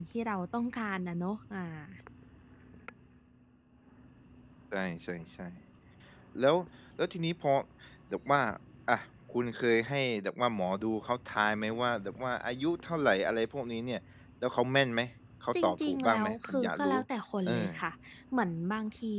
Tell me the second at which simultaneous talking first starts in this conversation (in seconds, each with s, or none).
15.6 s